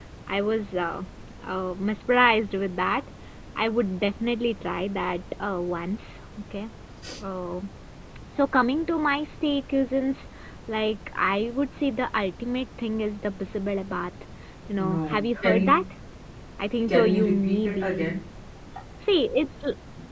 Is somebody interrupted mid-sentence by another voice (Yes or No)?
Yes